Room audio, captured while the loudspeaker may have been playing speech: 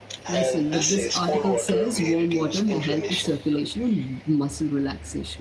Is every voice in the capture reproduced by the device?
No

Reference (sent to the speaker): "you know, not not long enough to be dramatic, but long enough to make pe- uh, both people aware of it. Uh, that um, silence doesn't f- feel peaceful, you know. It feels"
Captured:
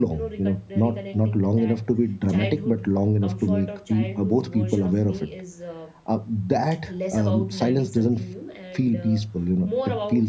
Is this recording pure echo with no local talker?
No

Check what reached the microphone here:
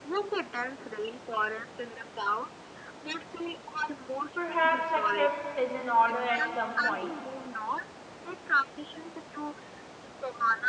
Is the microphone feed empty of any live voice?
No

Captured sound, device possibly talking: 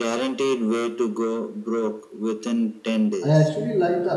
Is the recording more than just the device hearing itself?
Yes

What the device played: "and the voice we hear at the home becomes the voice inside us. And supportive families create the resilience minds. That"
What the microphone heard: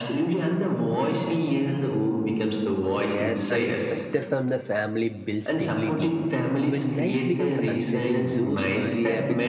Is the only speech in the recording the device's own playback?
No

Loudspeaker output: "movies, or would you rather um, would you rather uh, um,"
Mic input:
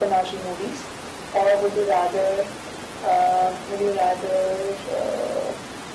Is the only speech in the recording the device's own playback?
Yes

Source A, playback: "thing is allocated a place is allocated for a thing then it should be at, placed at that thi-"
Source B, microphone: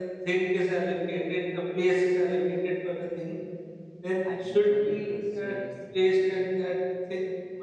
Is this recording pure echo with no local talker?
No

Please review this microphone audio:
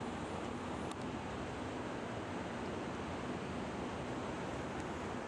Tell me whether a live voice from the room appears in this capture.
No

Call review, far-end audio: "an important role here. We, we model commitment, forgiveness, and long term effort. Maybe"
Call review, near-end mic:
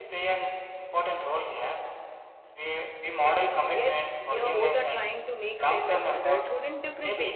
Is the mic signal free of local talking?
No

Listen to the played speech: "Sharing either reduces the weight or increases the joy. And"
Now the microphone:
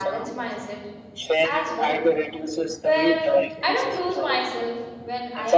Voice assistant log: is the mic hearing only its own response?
No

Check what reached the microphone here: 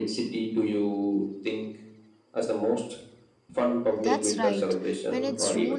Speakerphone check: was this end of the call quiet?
No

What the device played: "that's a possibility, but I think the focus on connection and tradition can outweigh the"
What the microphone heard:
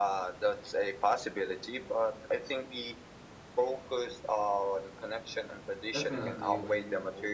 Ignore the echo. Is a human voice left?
Yes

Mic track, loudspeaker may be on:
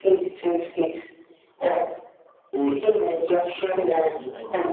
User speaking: Yes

